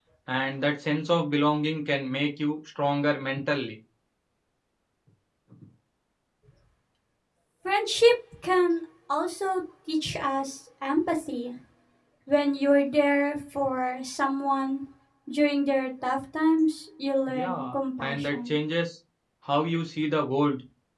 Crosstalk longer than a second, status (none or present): present